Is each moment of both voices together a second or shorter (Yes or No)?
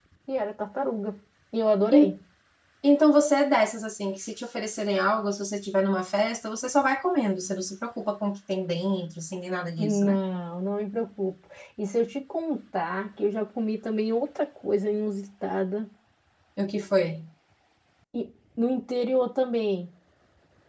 Yes